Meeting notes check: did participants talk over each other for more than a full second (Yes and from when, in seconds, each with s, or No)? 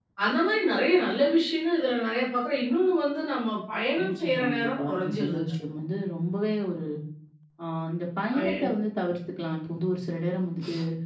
Yes, from 4.0 s